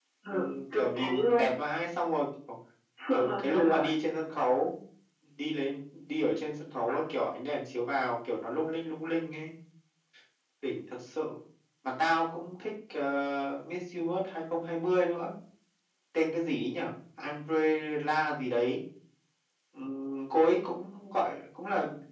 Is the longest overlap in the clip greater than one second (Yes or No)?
Yes